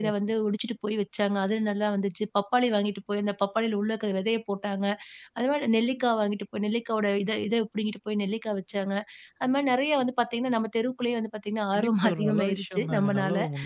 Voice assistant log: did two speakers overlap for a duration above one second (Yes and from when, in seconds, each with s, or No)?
Yes, from 11.7 s